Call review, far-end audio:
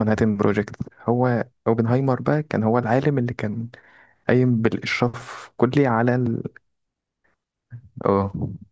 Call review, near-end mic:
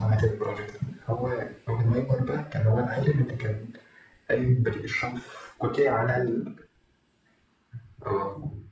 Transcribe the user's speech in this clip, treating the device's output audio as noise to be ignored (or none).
none